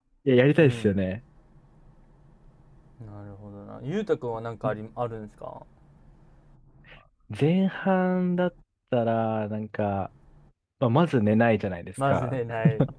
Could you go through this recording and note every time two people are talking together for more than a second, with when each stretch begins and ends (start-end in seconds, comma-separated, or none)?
none